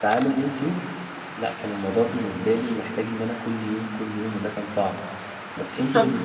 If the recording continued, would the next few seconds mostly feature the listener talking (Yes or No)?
Yes